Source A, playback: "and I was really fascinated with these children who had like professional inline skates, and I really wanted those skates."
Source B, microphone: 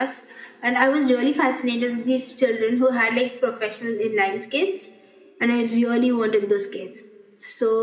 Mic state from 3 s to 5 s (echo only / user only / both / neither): echo only